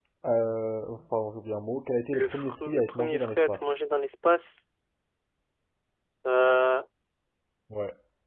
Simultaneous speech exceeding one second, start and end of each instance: 2.1-3.7

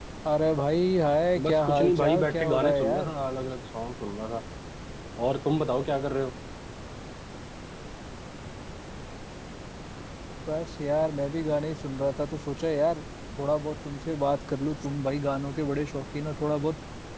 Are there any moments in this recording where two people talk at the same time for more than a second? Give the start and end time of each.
1.4-3.1

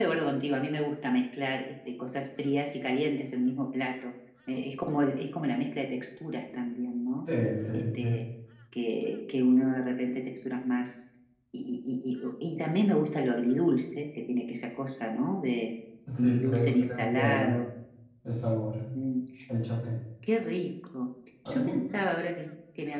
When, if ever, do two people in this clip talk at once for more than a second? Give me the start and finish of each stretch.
16.2-17.6

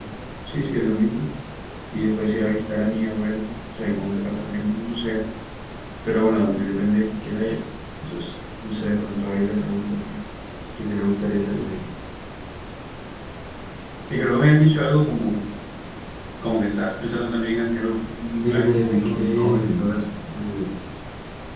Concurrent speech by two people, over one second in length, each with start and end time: 18.4-19.9

